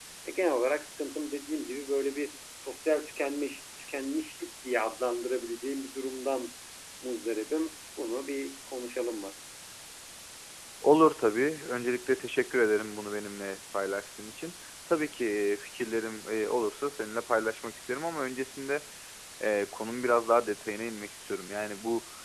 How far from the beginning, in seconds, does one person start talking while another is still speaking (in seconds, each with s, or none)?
none